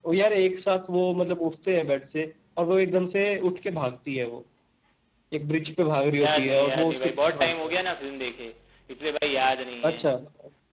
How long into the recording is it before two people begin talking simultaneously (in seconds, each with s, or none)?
6.2 s